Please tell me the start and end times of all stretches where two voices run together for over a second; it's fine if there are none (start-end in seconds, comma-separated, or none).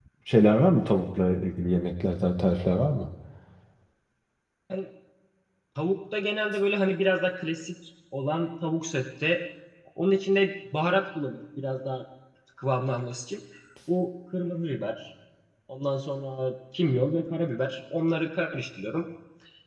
none